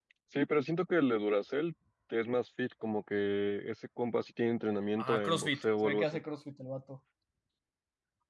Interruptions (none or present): present